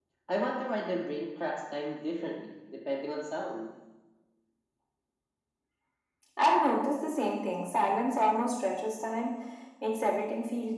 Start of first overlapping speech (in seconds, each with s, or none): none